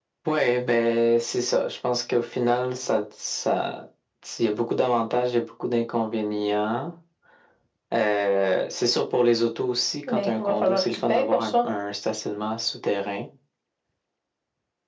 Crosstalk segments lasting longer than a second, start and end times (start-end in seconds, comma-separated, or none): 10.1-11.7